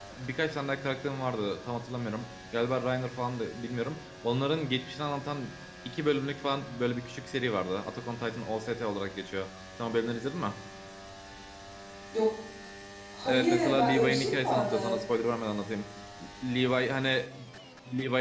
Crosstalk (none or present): present